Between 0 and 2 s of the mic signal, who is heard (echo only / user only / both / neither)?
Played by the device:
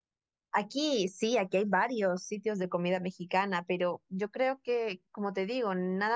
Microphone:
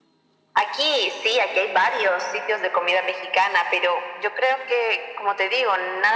echo only